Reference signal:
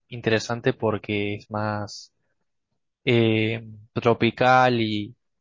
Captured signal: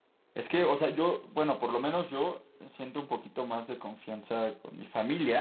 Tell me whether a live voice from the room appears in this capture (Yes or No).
Yes